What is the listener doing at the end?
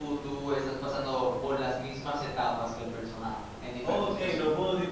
taking over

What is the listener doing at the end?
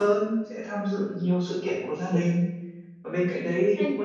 listening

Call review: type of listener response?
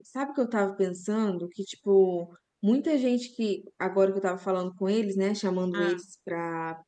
listening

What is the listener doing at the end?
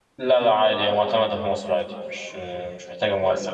taking over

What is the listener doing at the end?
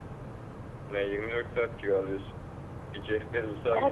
listening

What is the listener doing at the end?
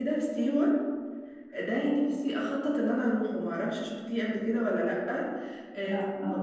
listening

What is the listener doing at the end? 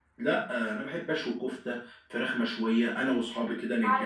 listening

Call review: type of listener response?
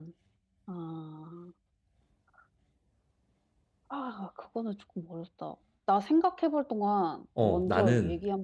taking over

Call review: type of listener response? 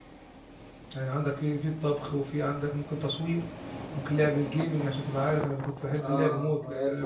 taking over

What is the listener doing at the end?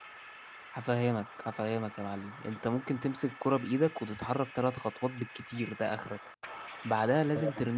listening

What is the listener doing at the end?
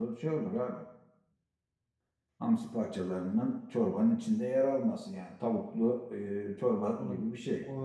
taking over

